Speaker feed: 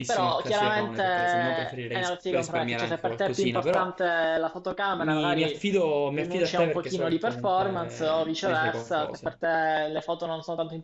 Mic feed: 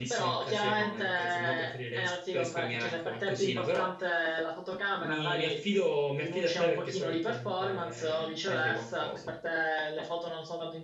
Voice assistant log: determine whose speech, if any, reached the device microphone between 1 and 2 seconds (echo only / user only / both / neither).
echo only